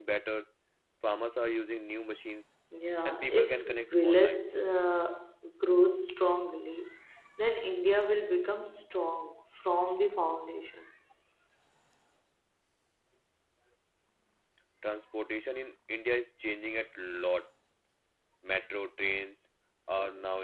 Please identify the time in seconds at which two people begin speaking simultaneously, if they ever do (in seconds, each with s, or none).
3.0 s